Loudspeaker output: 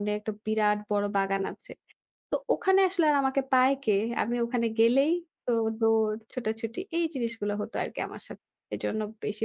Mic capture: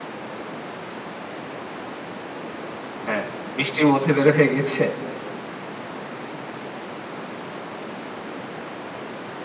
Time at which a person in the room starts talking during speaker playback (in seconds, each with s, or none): 3.1 s